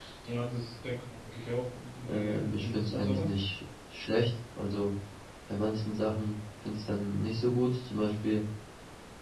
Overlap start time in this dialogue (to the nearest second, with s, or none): 2 s